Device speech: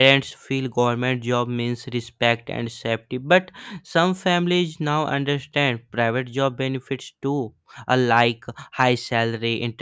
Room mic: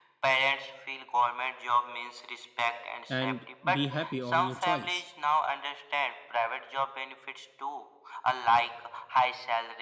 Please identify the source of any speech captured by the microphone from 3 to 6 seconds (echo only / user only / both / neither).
both